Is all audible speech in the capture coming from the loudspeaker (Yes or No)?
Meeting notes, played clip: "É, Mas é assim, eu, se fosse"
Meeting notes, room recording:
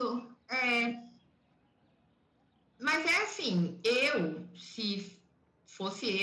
Yes